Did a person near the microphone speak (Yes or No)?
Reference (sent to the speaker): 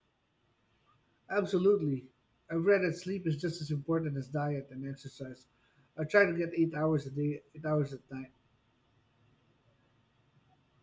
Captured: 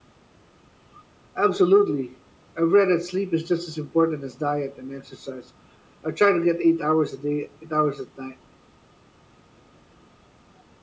No